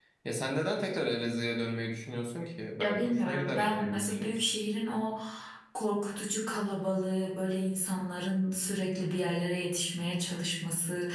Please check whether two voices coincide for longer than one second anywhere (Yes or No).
Yes